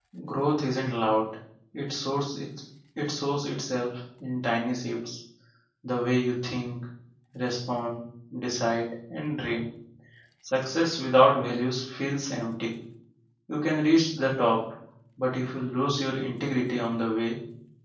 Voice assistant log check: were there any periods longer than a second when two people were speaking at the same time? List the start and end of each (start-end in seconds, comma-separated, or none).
none